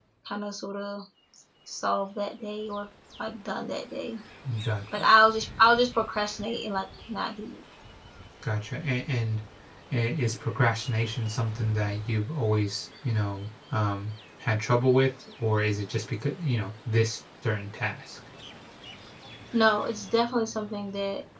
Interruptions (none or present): none